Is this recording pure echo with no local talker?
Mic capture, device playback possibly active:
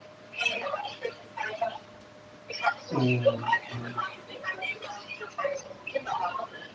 No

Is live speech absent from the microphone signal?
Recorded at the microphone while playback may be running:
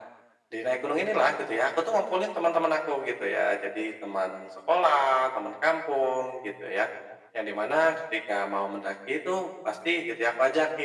Yes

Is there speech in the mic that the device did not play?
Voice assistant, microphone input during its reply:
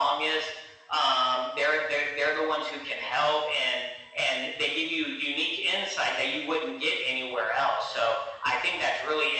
No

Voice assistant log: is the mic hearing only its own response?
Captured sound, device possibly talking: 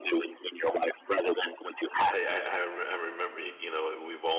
No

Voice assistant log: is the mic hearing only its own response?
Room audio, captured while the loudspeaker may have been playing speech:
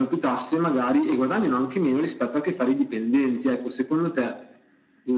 Yes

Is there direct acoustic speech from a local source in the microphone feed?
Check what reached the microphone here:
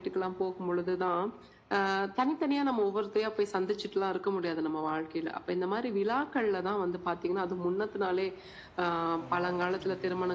Yes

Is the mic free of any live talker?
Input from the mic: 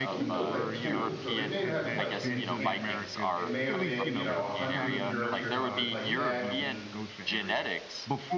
No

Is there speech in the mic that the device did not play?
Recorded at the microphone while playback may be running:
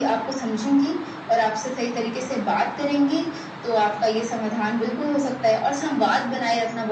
No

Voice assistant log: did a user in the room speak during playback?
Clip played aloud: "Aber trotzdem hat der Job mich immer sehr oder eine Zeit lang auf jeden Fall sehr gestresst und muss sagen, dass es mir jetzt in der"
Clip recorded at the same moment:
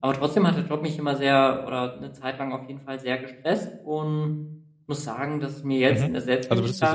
Yes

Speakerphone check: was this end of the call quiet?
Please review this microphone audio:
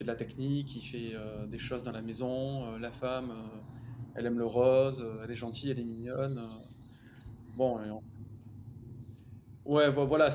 No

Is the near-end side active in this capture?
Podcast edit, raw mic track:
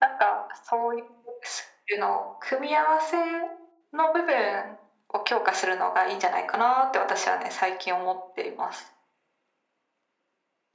No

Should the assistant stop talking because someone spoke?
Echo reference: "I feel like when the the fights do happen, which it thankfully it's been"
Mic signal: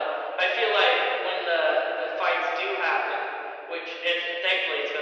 No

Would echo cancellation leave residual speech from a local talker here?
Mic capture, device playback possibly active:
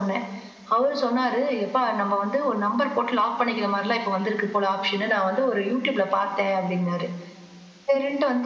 No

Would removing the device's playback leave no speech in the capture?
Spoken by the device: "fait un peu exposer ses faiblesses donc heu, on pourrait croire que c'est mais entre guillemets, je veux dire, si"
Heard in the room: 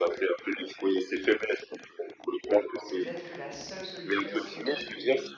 No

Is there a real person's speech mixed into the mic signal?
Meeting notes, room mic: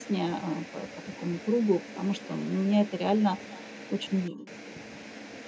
Yes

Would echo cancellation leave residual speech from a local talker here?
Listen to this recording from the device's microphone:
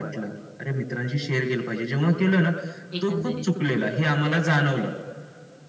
Yes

